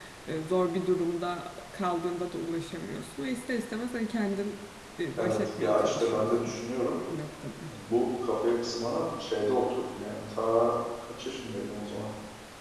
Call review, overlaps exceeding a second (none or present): present